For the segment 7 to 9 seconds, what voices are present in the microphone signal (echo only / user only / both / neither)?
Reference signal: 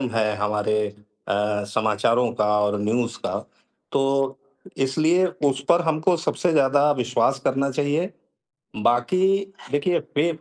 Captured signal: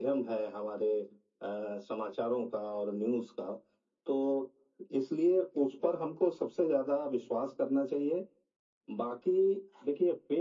echo only